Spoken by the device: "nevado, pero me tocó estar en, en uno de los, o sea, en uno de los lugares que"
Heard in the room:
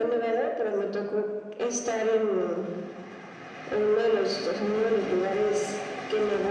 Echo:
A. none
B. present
B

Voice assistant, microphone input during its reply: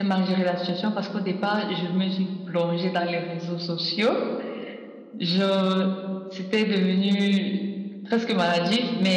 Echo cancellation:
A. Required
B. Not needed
B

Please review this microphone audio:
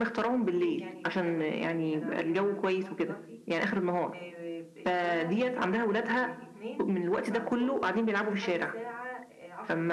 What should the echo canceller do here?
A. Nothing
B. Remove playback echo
B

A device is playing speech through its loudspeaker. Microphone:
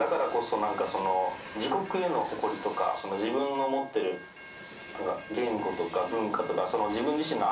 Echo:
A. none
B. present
B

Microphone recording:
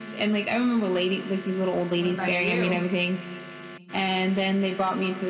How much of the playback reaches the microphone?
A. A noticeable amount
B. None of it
A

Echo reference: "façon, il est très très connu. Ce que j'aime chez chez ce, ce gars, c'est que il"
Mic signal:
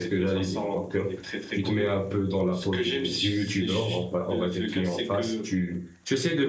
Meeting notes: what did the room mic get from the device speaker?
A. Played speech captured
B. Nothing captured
A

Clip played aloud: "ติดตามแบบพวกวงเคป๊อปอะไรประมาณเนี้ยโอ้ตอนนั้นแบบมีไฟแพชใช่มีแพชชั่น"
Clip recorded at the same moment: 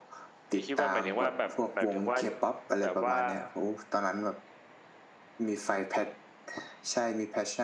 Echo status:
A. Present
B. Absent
A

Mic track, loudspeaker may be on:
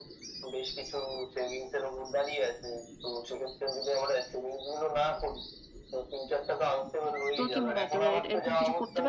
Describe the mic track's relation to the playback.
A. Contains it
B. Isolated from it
A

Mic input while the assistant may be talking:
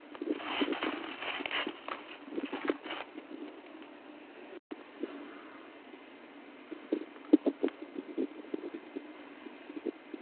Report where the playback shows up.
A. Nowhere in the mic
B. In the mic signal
A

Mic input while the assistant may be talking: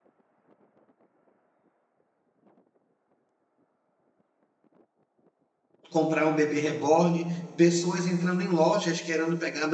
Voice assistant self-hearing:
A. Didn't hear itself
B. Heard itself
A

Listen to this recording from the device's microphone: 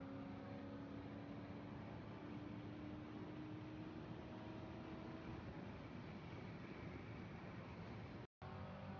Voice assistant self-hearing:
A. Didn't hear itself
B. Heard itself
A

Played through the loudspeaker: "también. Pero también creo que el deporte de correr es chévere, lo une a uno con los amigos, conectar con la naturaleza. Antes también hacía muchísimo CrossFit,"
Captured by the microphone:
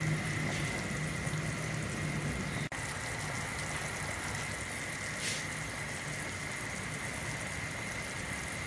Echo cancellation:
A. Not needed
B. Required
A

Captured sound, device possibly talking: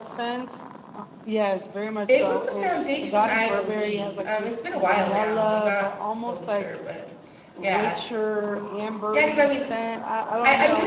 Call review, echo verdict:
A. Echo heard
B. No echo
A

